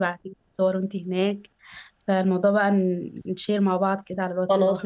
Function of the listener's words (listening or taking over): taking over